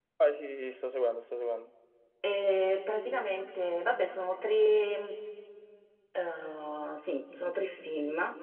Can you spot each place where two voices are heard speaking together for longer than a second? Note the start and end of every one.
none

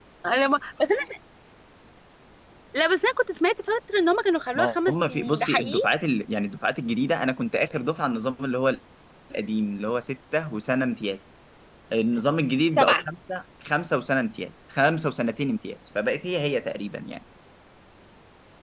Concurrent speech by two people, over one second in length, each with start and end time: 4.5-5.8

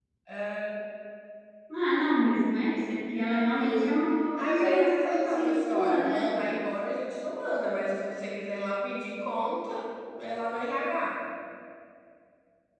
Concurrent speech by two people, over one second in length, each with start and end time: 4.4-6.3

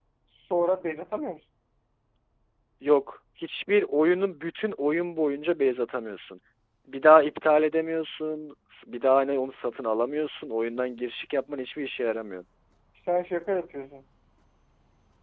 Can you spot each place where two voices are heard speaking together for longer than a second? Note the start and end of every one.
none

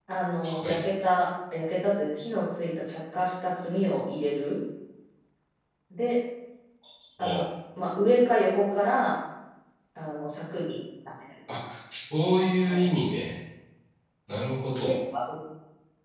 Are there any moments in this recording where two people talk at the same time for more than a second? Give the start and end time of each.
none

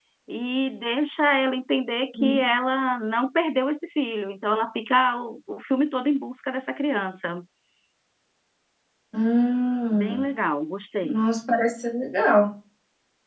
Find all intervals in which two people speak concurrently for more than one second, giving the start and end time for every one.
none

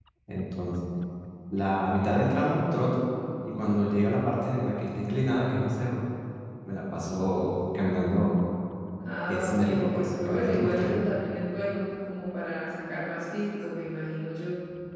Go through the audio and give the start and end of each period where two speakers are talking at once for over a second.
9.3-11.0

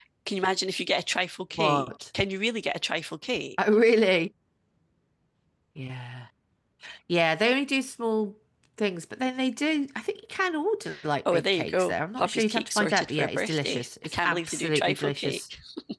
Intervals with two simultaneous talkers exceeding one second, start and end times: 11.2-15.4

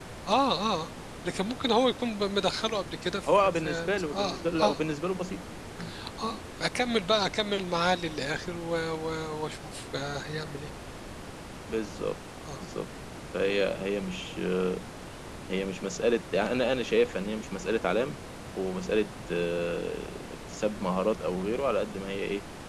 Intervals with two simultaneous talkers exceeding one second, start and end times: 3.2-4.8

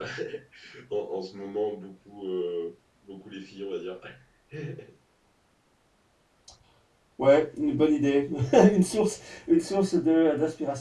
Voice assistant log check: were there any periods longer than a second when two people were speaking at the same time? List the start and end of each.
none

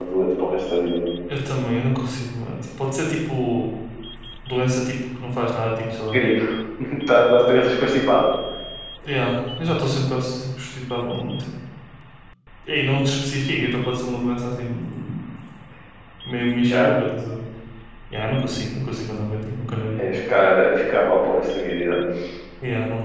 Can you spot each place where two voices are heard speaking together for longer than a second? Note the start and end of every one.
none

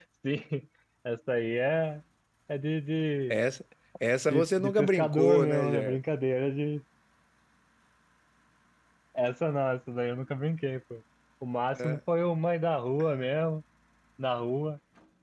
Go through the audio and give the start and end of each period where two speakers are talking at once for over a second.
4.3-6.0

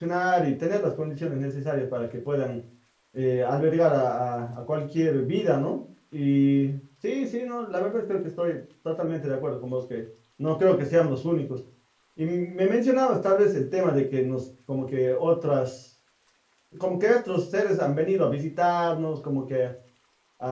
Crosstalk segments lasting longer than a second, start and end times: none

